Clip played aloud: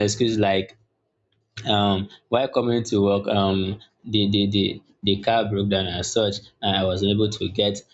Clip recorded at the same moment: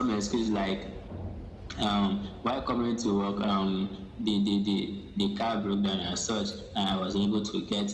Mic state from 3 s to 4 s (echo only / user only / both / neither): echo only